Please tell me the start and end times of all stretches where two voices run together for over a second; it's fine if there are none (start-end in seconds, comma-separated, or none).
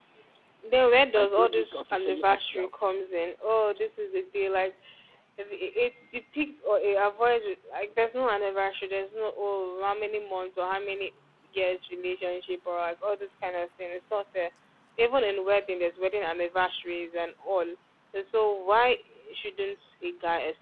1.1-2.7